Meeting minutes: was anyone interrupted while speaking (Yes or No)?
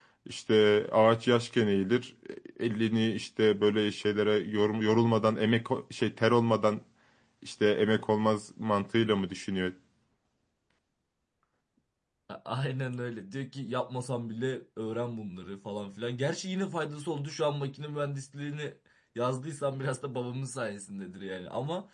No